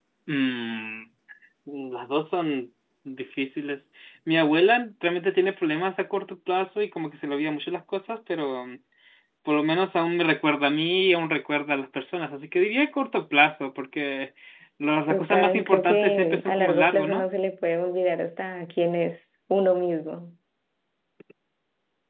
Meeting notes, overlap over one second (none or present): present